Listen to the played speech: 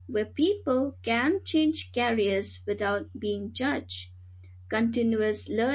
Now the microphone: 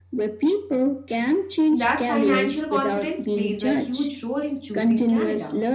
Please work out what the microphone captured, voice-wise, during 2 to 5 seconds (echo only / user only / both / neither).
both